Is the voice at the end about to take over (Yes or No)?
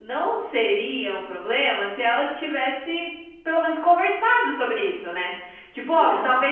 No